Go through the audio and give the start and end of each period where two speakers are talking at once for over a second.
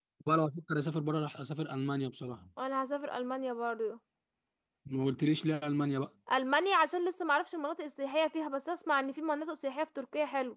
none

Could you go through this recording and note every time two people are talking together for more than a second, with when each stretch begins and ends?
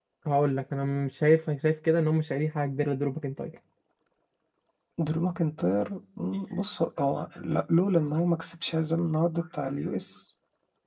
none

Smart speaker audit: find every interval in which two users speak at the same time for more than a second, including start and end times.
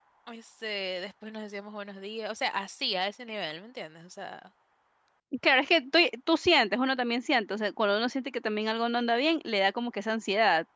none

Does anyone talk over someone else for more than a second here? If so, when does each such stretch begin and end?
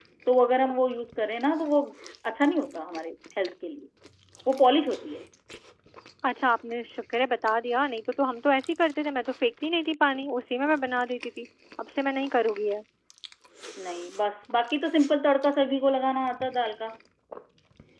none

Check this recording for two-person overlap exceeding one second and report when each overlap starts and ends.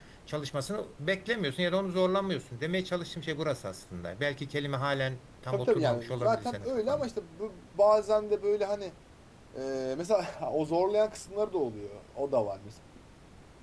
5.5-7.1

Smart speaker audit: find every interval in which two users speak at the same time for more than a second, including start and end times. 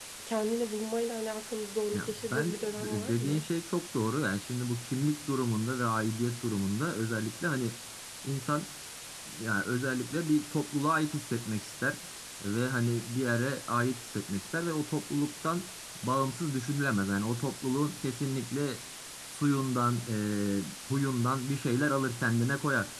1.9-3.4

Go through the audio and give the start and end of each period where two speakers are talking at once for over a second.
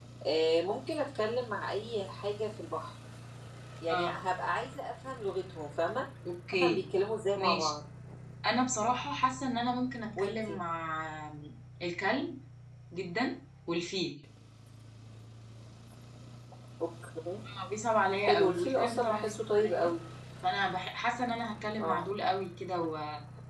18.2-19.9

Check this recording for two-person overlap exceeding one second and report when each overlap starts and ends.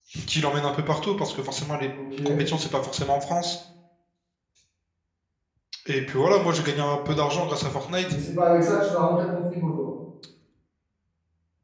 none

